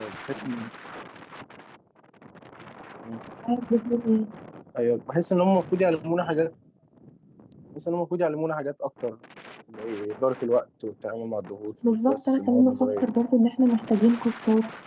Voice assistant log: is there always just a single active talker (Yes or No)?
No